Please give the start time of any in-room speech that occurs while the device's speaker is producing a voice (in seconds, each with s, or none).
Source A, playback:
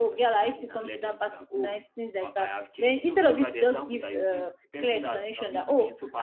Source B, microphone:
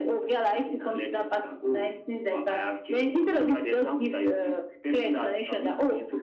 none